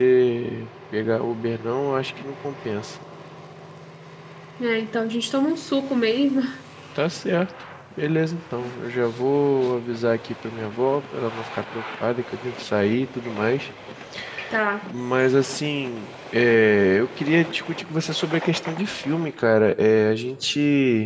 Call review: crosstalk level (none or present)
none